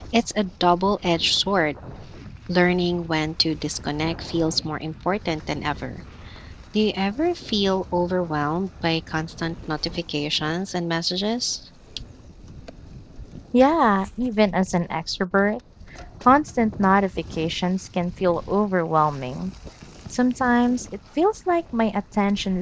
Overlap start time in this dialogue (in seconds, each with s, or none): none